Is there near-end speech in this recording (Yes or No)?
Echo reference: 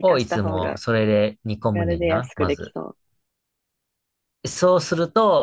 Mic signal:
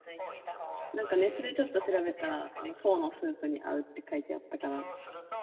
Yes